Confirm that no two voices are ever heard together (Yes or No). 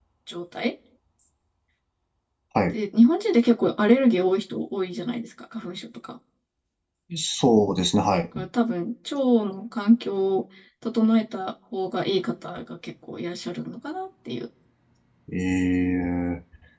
Yes